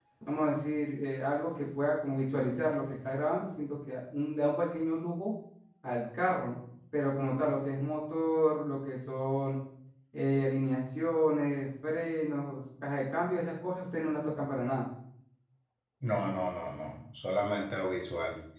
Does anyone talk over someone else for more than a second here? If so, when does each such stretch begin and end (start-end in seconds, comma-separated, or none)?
none